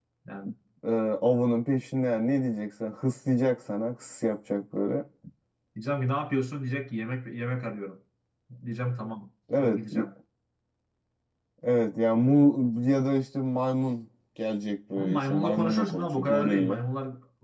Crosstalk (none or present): present